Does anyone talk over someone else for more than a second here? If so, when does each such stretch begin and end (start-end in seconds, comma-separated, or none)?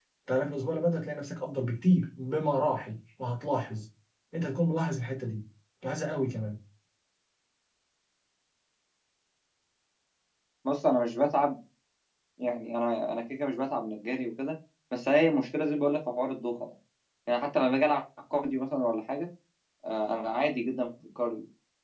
none